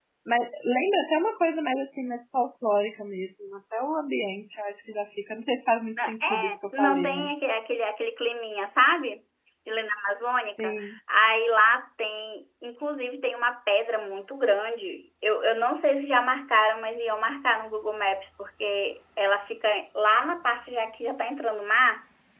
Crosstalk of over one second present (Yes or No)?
Yes